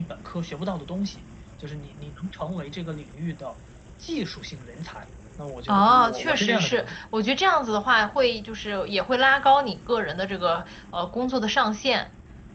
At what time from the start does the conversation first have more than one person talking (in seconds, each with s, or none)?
5.7 s